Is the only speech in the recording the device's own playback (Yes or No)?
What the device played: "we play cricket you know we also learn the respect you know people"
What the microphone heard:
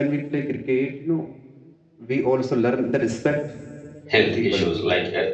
No